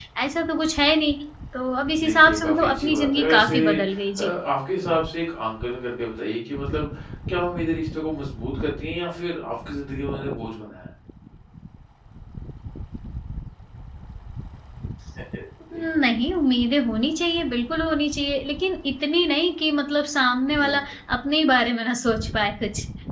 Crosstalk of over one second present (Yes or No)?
Yes